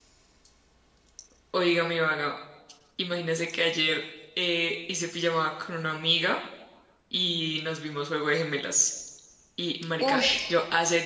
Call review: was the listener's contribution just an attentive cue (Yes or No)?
Yes